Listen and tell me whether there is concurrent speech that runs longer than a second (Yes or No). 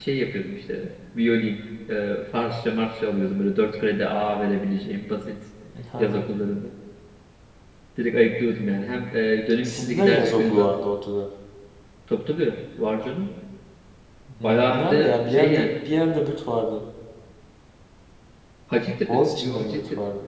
Yes